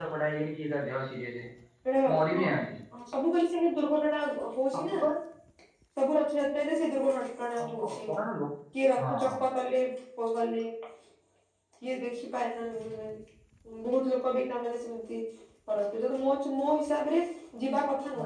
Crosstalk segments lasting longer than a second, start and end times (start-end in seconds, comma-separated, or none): none